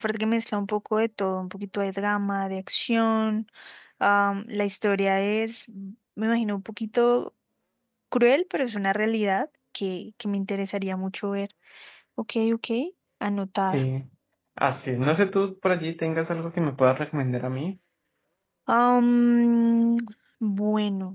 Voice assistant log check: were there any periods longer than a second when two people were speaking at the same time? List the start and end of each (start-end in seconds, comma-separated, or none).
none